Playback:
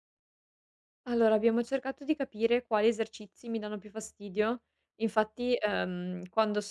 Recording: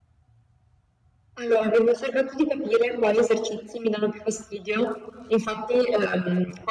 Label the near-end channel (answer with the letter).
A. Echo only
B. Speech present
A